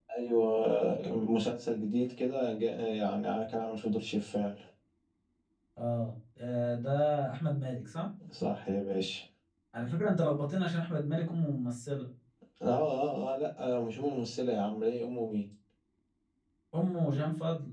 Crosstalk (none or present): none